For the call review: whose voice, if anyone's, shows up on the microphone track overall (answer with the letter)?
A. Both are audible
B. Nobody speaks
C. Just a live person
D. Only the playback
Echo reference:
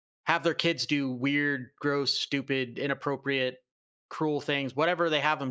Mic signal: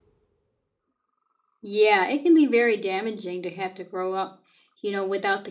C